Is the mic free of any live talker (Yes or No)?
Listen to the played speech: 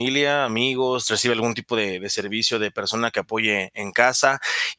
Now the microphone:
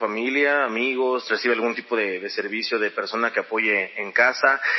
Yes